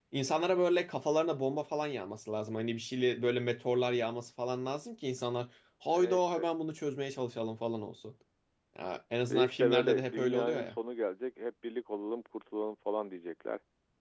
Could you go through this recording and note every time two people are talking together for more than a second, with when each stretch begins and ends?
9.3-10.7

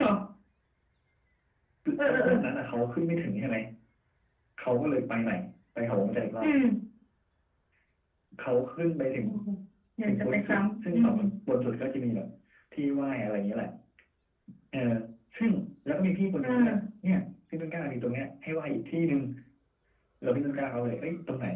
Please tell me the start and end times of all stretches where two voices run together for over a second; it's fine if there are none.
10.0-11.3

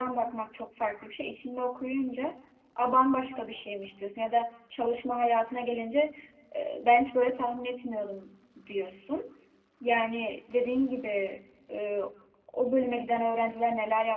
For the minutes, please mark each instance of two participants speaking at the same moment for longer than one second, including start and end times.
none

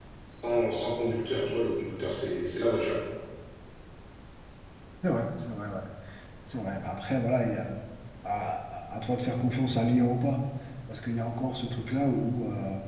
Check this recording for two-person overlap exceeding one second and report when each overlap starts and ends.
none

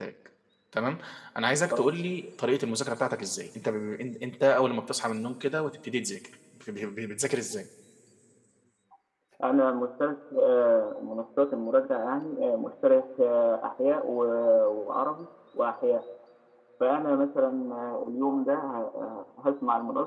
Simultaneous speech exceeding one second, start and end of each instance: none

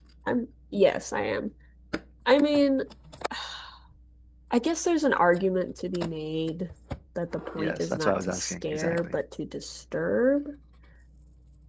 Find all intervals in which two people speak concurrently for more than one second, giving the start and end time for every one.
7.6-9.2

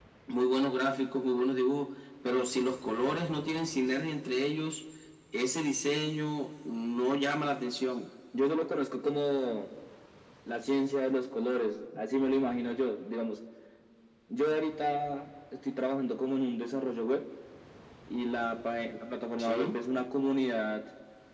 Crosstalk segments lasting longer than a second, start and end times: none

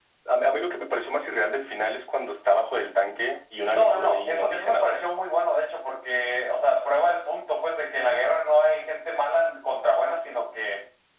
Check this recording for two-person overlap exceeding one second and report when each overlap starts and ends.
3.7-5.0

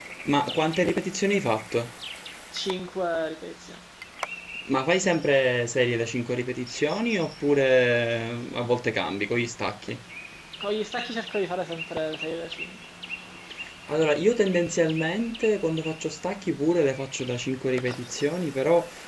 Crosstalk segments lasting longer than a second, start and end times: none

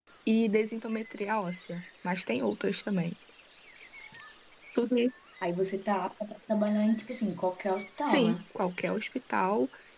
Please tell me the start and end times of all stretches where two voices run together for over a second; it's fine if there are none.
none

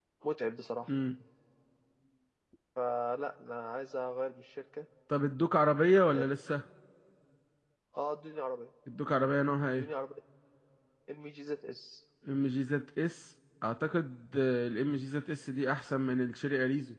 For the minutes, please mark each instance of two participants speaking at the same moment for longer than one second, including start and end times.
none

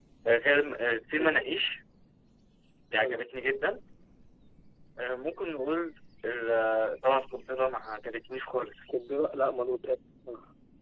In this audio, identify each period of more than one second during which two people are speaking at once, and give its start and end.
none

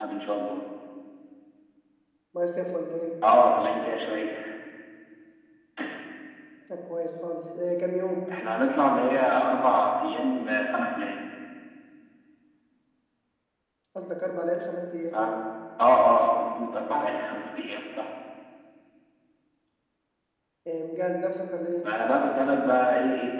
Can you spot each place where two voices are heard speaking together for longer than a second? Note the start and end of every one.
none

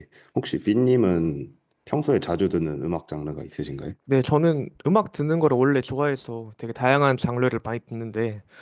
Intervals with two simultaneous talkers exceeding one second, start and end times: none

